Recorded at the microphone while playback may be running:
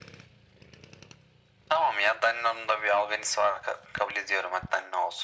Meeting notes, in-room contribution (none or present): none